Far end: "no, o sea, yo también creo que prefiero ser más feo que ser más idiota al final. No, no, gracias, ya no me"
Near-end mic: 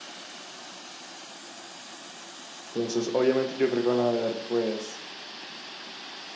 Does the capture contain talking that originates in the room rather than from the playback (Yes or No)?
Yes